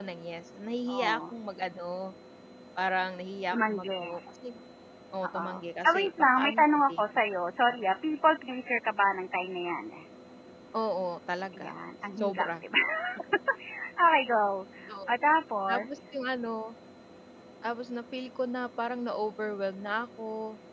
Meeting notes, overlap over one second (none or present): present